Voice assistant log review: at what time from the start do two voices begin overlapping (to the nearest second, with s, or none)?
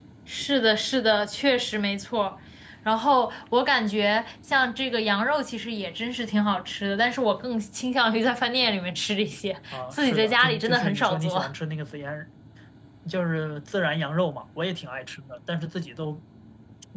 10 s